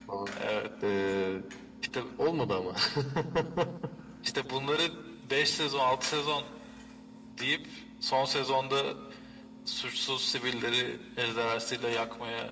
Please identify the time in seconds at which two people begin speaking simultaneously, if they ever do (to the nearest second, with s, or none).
none